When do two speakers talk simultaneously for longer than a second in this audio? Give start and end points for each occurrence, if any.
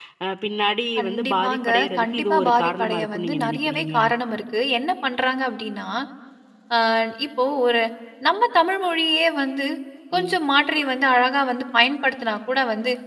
1.0-4.0

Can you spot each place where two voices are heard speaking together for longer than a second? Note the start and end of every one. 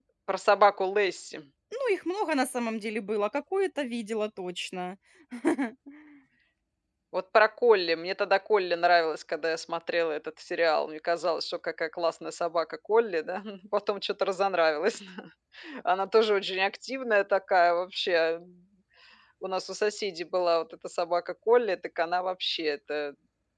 none

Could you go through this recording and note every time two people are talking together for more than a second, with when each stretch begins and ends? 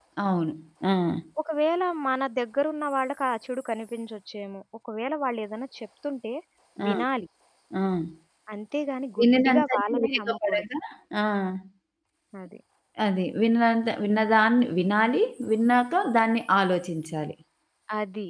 9.2-10.6

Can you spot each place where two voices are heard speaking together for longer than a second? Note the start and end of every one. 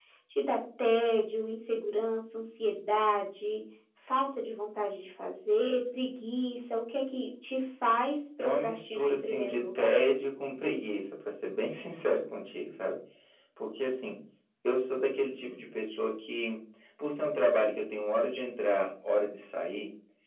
8.4-9.9

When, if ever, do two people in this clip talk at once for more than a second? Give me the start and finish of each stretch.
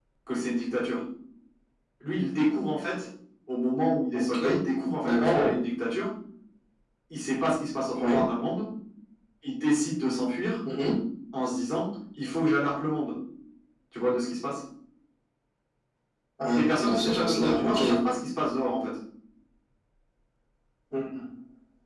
16.5-17.8

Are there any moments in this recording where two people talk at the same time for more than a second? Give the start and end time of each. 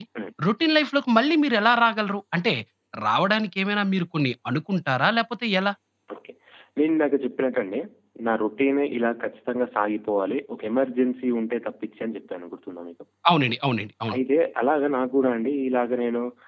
none

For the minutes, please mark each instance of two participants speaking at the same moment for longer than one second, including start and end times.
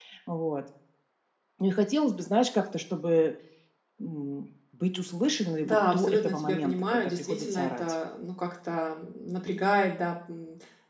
5.6-7.8

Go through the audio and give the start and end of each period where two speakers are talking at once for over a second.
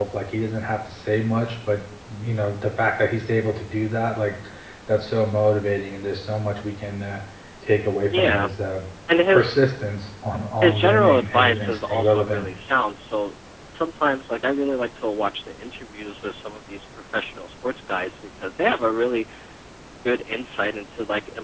10.6-12.5

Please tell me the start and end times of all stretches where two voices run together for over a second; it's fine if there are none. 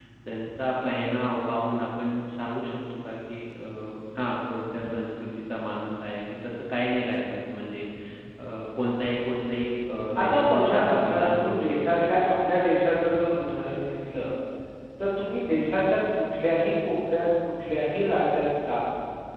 10.2-12.1

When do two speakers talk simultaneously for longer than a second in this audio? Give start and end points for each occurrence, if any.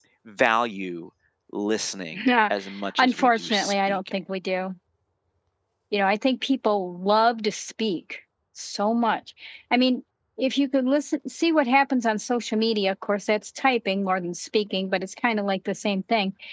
3.0-4.2

